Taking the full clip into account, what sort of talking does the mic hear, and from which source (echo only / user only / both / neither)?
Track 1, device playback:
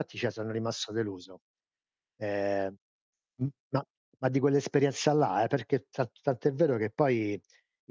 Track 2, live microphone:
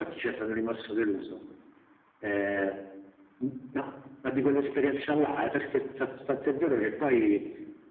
echo only